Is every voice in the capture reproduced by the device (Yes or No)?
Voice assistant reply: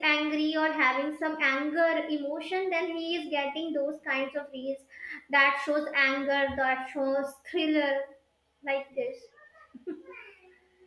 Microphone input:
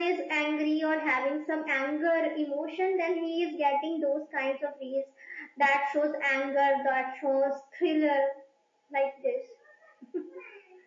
Yes